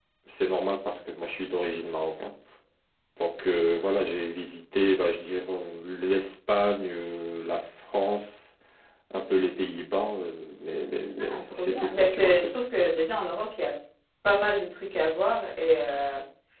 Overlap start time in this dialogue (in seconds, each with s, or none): 11.2 s